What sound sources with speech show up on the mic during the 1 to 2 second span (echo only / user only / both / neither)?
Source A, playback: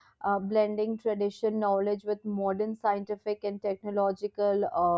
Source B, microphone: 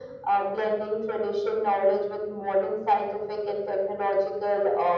echo only